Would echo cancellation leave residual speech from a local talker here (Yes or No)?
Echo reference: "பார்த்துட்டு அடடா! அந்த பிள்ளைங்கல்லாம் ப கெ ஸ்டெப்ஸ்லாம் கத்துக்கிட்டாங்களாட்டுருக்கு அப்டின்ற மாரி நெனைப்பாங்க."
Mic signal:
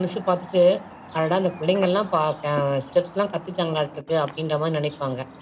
No